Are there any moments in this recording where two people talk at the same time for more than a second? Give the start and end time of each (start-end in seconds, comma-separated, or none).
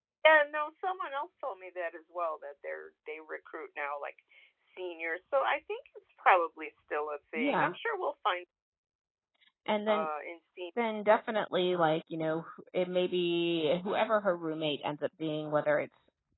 none